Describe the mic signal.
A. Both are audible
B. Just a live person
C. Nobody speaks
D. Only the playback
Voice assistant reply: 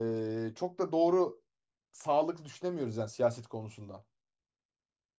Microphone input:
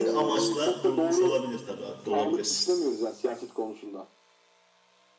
A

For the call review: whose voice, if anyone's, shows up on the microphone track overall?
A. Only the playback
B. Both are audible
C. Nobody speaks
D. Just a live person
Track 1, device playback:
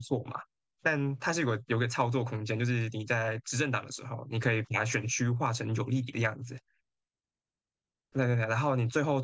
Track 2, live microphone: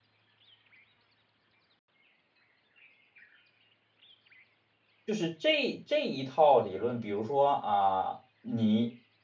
D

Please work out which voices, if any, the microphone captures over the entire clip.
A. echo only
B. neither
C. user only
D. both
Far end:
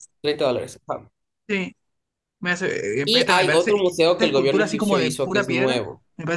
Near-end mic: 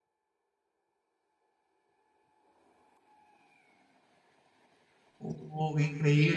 C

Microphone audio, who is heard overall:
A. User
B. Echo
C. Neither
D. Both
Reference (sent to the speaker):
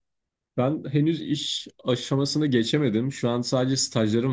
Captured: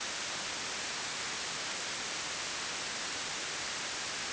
C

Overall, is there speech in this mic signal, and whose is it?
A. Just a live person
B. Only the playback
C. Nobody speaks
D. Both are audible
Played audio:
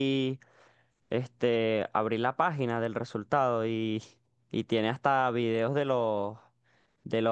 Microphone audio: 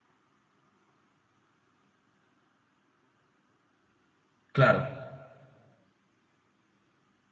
A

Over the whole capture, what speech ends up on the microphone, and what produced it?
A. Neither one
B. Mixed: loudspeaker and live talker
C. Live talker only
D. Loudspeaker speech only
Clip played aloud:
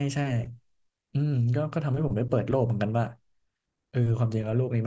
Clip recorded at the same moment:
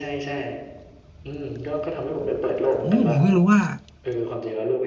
B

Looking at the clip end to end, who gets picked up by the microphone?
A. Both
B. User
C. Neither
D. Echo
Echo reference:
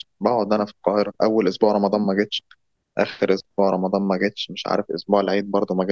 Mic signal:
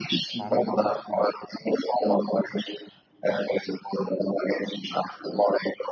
A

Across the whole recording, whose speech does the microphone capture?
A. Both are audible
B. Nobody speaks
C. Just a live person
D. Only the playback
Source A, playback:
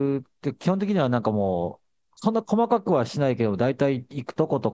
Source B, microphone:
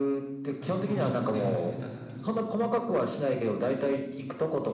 A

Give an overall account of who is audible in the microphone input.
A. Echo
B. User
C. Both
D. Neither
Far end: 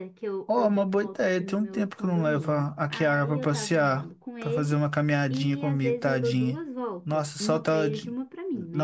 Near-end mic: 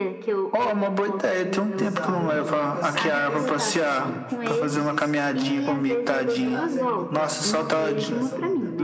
C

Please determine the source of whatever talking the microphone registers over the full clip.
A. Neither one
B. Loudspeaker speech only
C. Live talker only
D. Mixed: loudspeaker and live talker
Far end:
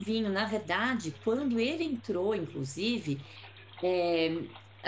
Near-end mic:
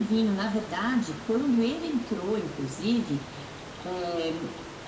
B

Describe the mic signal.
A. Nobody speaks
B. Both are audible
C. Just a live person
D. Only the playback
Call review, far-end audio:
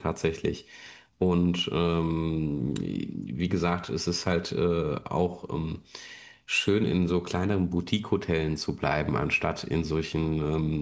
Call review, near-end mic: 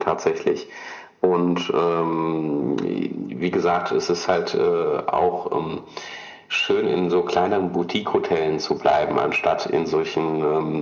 D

